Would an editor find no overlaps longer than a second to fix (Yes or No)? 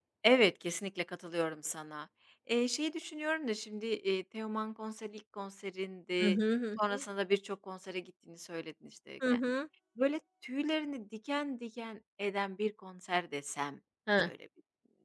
Yes